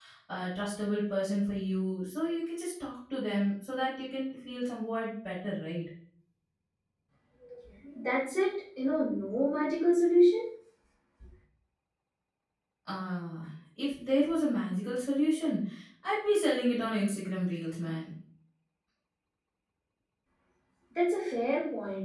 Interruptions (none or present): none